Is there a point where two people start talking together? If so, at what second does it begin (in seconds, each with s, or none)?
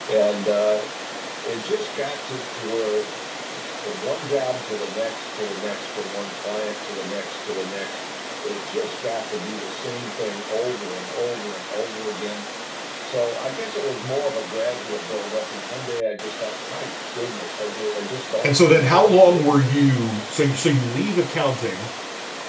18.4 s